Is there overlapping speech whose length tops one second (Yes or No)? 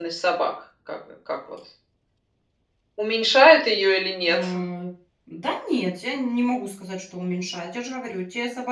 No